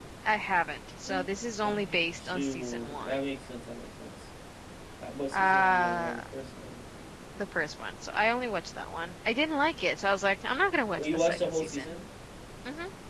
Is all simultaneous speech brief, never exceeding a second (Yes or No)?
No